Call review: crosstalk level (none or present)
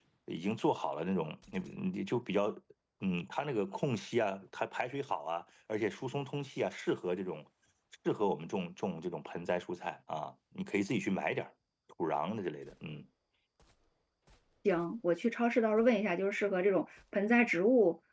none